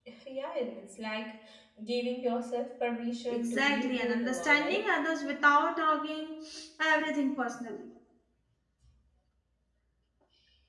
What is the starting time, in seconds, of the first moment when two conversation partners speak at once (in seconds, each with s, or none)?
3.3 s